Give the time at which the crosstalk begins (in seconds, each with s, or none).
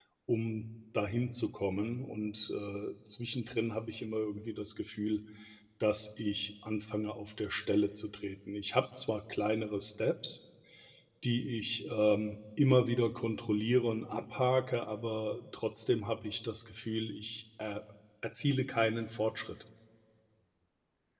none